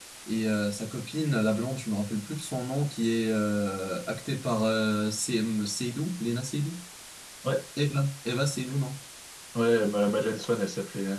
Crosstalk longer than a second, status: none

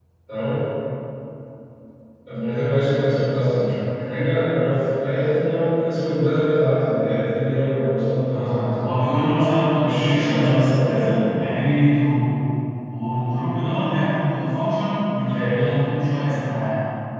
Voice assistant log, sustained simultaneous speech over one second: present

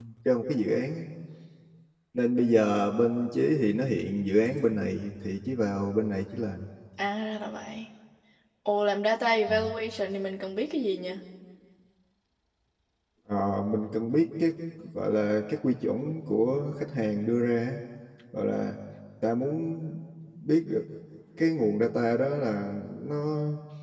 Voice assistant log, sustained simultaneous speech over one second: none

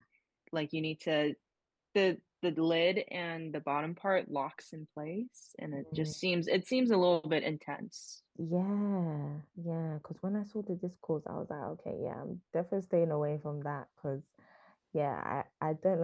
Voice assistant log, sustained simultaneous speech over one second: none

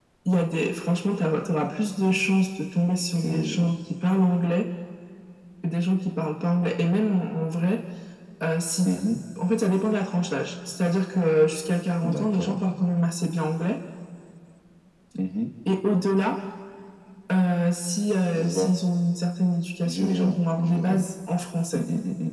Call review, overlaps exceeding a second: present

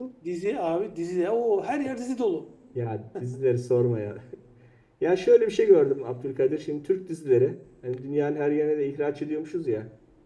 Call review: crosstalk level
none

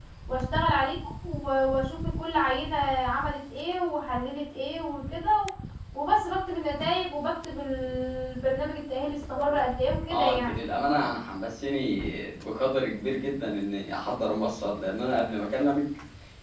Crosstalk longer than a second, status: none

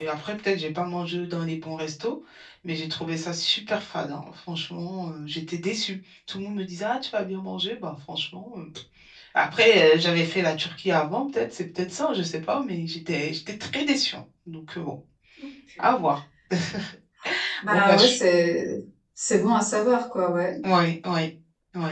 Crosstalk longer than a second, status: none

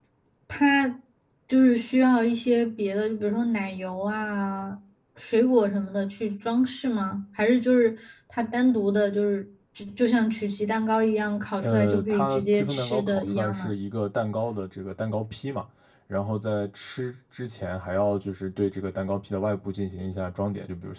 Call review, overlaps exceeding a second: present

